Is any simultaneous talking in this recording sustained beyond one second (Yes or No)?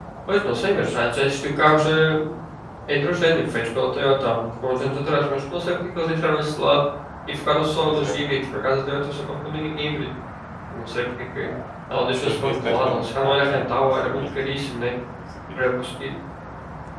Yes